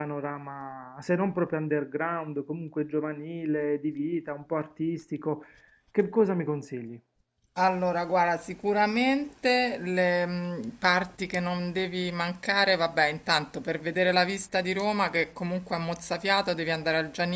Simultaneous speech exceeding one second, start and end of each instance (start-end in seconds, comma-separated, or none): none